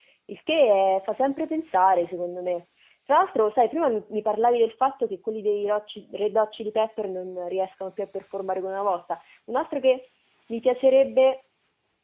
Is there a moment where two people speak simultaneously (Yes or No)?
No